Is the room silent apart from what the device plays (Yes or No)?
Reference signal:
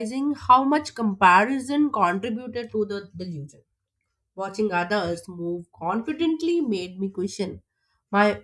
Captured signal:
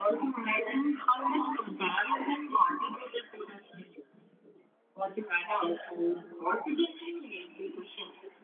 Yes